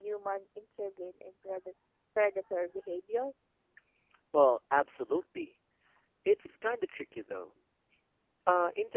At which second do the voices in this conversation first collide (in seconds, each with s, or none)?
none